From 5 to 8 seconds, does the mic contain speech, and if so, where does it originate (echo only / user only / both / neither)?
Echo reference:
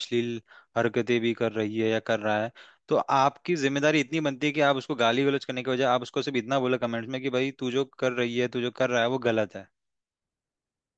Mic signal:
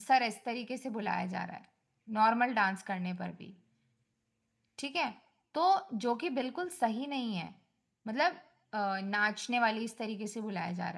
user only